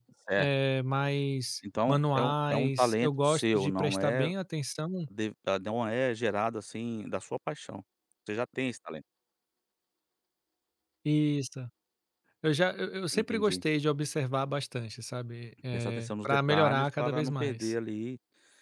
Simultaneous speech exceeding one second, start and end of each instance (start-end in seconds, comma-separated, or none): 1.9-4.3, 15.7-17.7